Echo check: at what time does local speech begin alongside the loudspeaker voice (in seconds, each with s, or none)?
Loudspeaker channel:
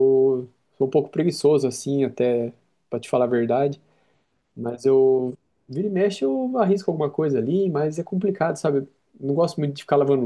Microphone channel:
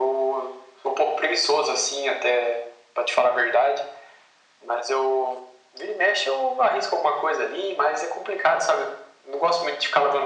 none